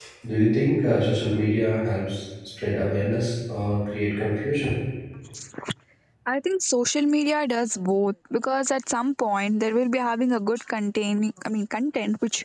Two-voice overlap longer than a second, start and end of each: none

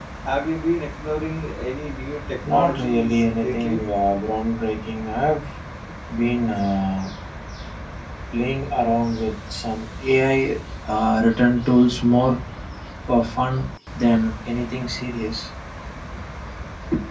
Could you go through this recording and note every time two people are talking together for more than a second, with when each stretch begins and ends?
2.5-3.8

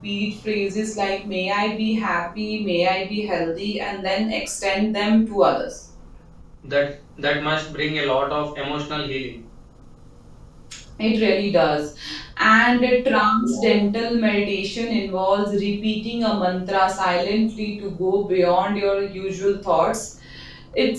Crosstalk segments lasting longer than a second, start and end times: none

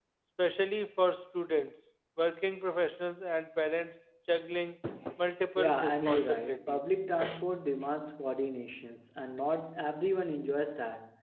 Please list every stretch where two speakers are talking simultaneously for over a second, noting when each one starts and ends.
5.6-6.8

